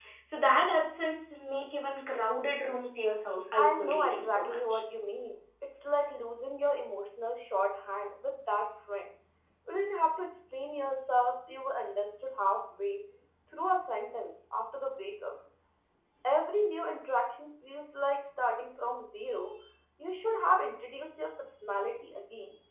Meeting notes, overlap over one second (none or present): present